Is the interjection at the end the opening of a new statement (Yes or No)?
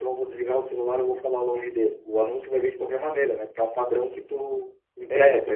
Yes